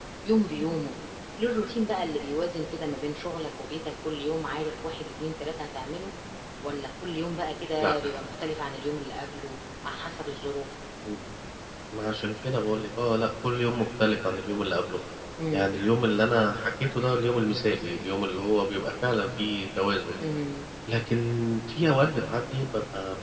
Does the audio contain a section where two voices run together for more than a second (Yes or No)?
No